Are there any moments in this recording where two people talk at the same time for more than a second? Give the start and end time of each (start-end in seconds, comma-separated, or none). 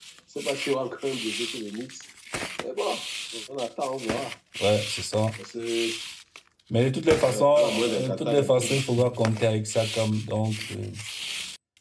7.2-8.8